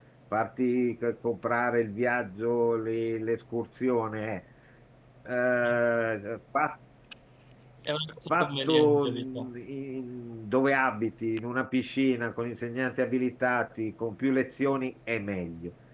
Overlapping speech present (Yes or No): Yes